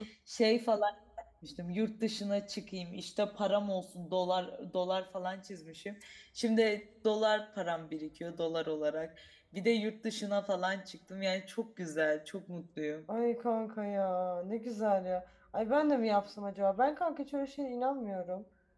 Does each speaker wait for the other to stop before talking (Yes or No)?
Yes